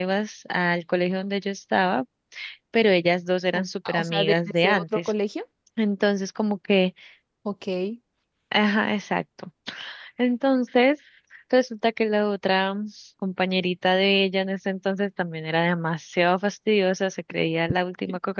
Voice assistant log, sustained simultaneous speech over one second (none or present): present